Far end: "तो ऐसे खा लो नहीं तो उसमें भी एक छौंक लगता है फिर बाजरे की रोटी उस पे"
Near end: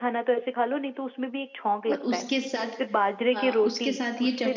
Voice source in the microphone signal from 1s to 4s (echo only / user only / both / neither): both